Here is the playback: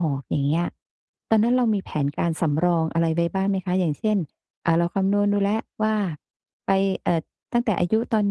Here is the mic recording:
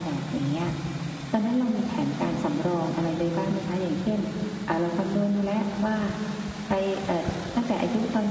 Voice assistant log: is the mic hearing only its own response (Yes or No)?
Yes